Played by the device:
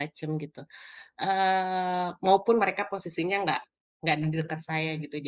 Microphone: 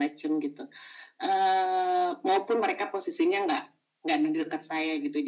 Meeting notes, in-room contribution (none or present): none